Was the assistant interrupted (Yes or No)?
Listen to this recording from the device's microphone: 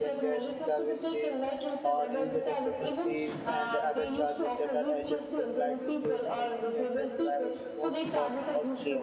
Yes